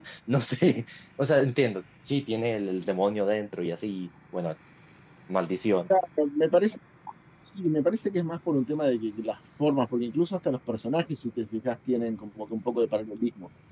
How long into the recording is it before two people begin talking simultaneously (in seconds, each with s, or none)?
none